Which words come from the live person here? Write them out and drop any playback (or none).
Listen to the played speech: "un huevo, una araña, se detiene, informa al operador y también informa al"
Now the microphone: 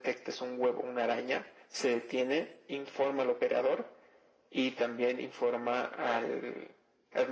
none